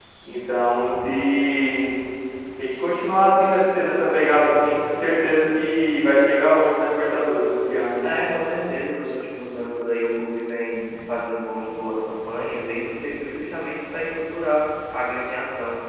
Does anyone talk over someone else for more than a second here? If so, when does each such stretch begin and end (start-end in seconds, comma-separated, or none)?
none